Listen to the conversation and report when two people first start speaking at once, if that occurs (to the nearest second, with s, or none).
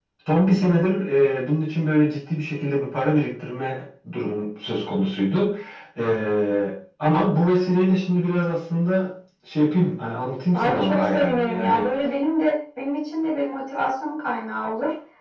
11 s